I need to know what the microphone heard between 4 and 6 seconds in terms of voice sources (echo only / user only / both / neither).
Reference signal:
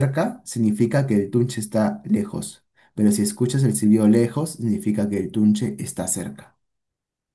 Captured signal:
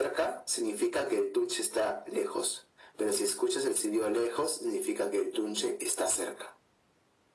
echo only